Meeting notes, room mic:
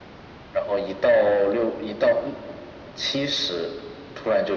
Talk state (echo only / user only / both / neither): echo only